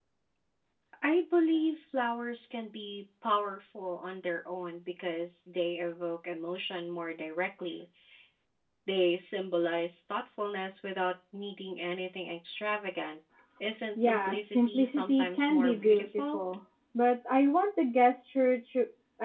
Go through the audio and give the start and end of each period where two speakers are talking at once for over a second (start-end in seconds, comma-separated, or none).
13.9-16.4